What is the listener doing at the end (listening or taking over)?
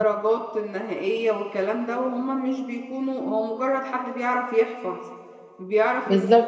taking over